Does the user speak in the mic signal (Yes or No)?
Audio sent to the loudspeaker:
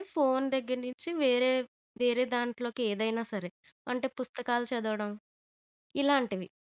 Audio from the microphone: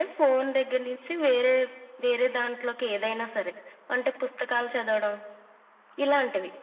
No